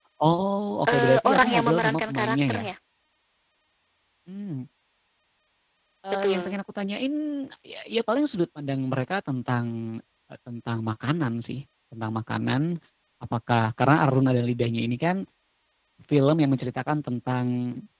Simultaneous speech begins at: 0.9 s

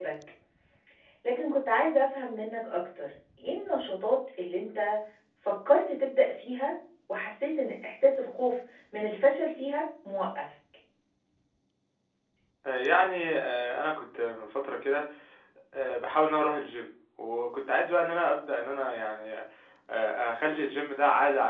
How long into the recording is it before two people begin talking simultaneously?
none

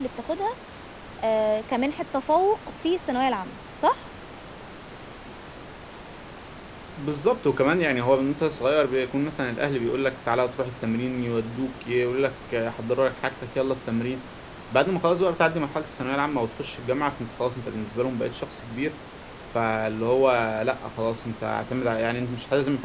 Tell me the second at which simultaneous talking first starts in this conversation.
none

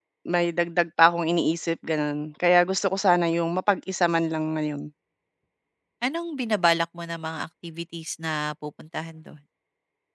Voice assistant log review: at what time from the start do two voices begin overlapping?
none

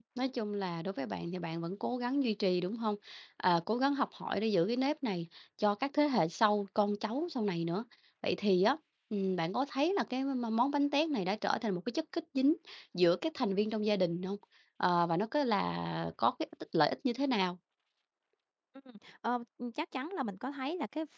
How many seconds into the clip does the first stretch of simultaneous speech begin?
none

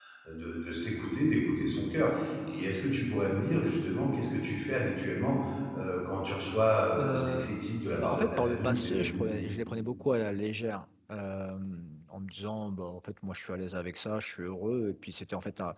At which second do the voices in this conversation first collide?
7.0 s

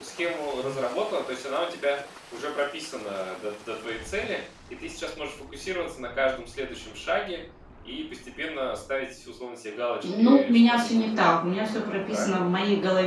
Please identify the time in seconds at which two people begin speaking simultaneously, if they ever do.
10.0 s

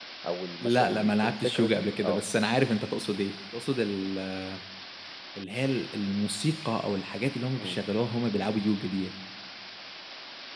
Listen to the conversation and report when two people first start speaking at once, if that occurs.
0.6 s

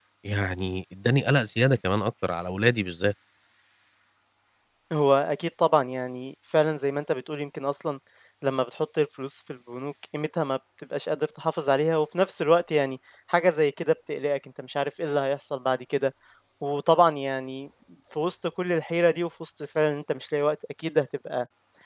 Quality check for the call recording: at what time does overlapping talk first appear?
none

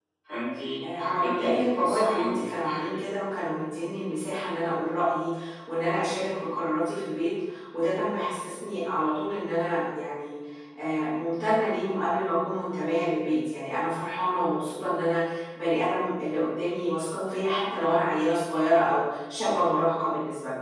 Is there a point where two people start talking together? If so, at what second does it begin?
1.0 s

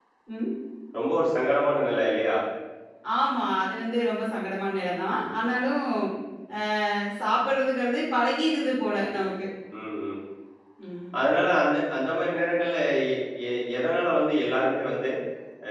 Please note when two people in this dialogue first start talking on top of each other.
none

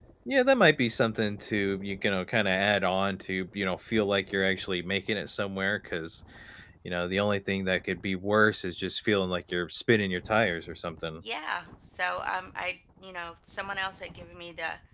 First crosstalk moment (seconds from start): none

